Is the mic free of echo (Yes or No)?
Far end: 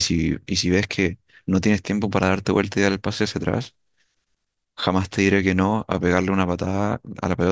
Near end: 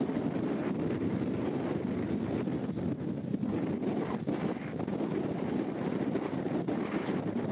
Yes